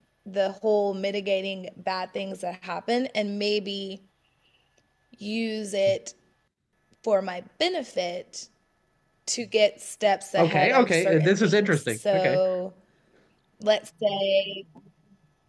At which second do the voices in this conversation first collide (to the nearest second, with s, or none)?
10 s